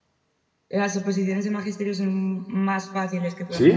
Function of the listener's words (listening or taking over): listening